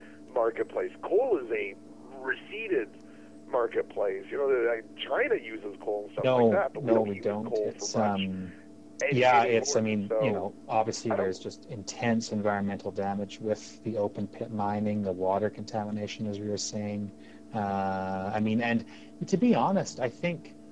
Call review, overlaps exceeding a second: present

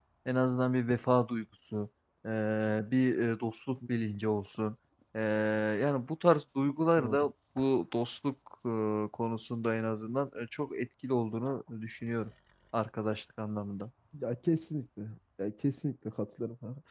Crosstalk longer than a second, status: none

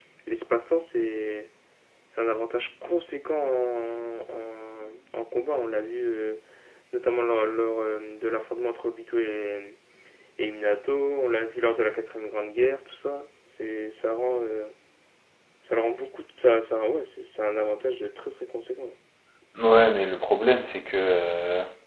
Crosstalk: none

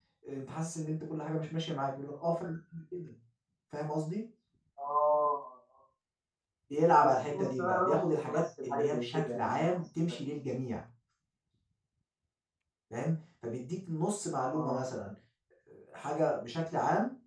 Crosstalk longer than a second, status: present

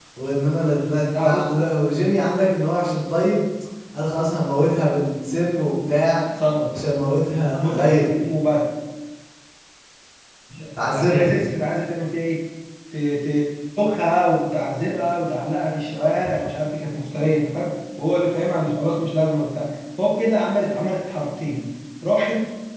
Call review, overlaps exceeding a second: none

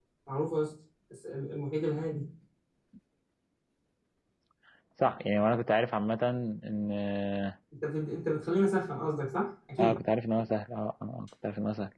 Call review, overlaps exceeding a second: none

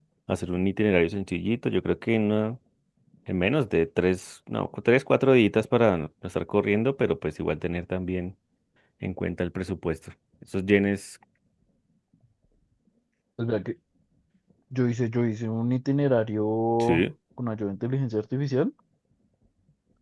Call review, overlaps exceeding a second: none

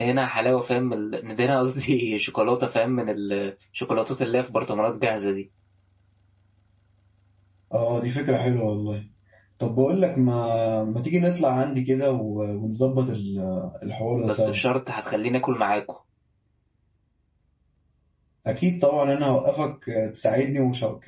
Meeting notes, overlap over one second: none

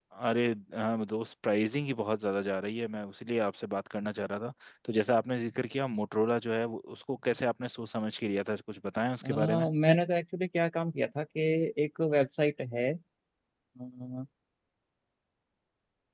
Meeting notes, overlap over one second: none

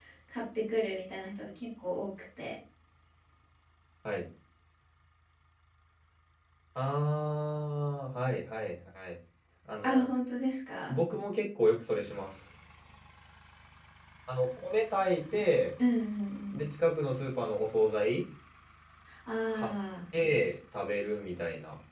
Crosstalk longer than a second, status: none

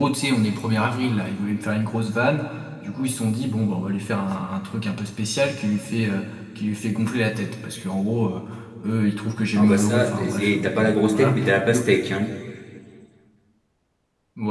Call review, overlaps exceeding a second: present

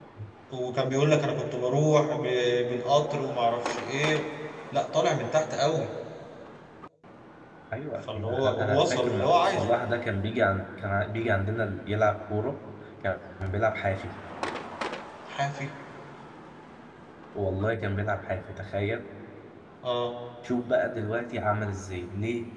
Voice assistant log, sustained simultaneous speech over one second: present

